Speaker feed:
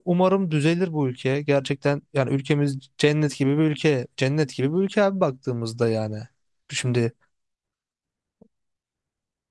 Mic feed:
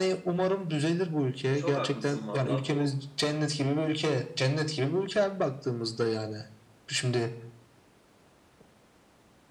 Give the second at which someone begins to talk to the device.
2 s

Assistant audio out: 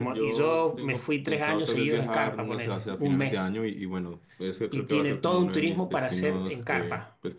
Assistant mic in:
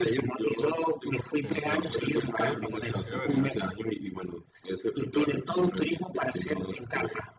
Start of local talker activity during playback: 1 s

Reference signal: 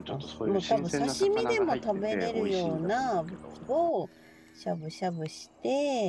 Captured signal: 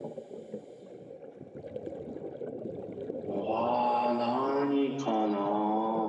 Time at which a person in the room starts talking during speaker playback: 3 s

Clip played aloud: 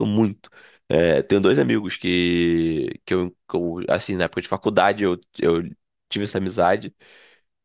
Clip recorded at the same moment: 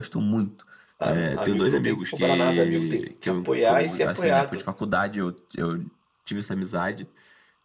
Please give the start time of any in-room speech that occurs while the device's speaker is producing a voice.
1 s

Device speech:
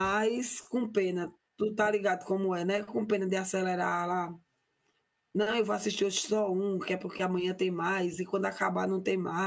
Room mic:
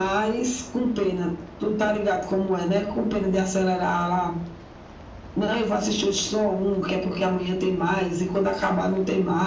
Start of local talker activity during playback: none

